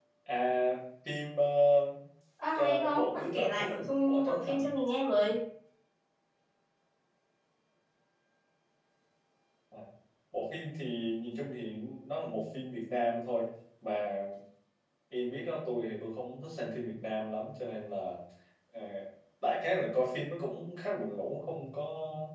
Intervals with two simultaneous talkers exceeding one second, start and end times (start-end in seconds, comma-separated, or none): 2.5-4.7